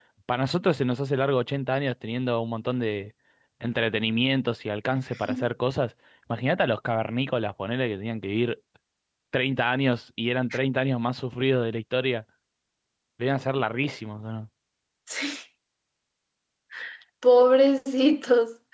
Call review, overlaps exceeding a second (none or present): none